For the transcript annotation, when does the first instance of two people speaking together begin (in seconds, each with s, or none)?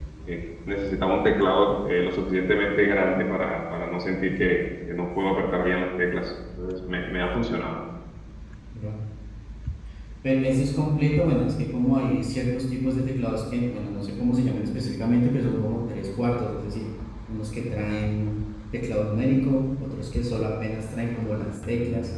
none